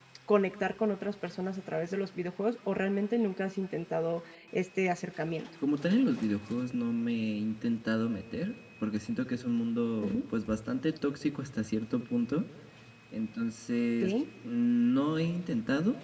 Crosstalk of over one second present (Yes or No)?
No